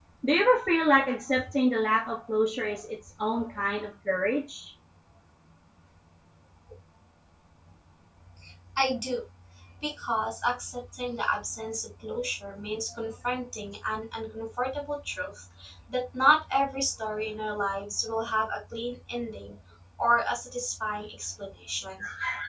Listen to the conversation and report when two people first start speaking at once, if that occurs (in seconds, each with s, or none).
none